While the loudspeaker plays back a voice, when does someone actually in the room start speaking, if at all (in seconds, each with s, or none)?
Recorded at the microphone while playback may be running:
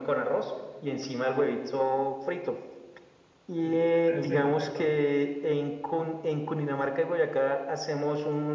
3.6 s